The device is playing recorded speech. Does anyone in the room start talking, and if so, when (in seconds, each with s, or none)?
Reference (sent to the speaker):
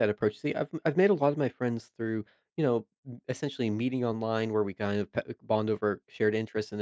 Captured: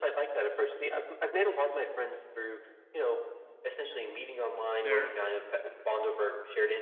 4.8 s